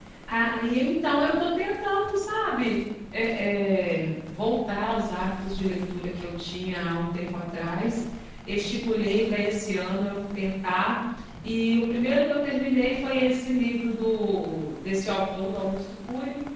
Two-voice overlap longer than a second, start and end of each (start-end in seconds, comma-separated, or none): none